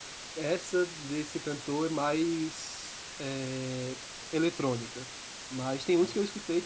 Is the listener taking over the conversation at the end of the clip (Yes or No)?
No